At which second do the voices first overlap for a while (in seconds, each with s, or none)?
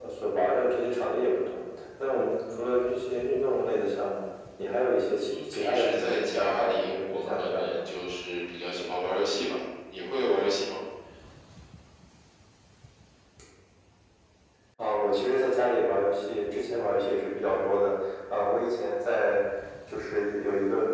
5.2 s